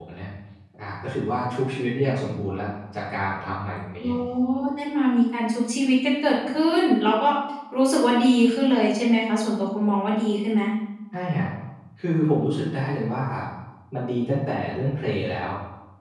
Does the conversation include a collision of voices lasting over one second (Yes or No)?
No